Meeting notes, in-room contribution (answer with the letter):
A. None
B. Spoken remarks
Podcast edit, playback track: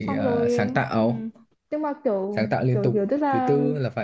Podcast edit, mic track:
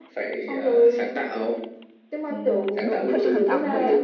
B